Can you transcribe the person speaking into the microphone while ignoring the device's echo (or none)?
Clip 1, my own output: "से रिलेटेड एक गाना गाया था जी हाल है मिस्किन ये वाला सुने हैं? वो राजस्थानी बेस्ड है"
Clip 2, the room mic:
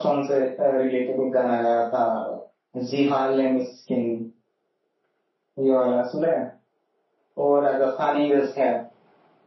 none